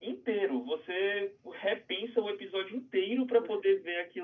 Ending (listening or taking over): listening